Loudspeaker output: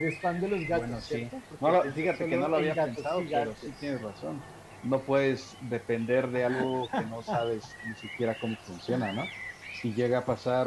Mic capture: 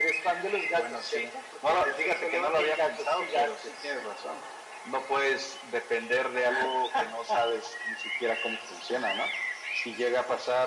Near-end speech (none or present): none